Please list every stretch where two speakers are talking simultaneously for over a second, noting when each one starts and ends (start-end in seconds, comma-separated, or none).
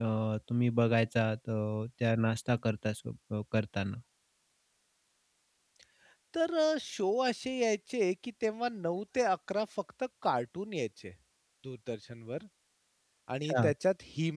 none